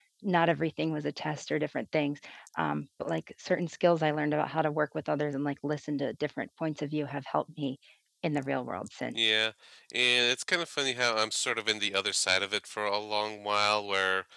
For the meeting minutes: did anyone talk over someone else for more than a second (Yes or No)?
No